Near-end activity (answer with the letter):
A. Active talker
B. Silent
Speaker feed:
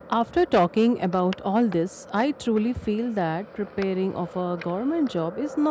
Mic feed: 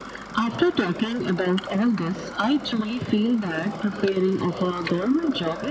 B